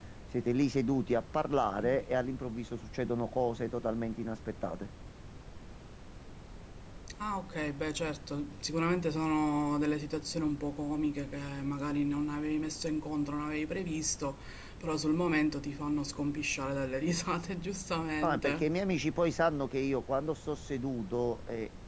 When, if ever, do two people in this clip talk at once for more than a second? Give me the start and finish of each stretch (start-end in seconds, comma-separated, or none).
none